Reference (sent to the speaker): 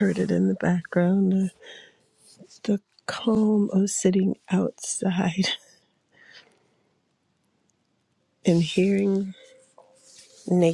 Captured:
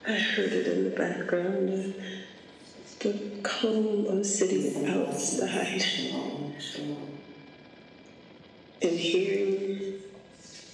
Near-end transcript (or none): Peace and blessings. Shalom, shalom.